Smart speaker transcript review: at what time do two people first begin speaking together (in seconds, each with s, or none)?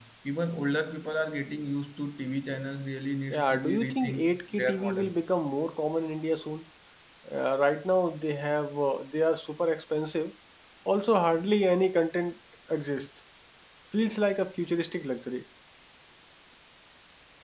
3.3 s